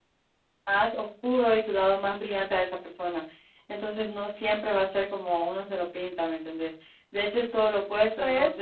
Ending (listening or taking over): listening